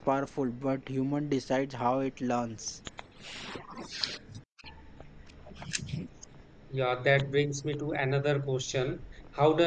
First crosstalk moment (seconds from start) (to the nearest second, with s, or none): none